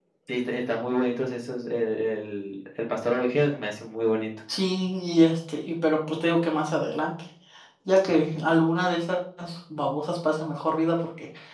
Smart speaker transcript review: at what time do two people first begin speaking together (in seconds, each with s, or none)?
none